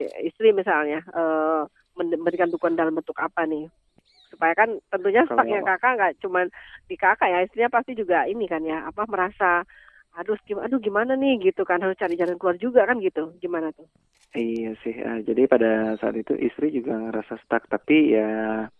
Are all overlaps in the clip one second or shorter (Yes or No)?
Yes